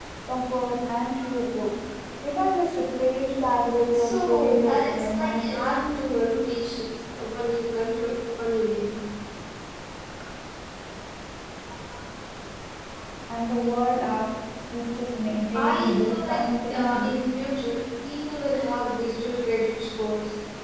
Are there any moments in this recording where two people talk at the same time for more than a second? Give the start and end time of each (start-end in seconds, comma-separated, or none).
3.9-5.8, 15.6-17.1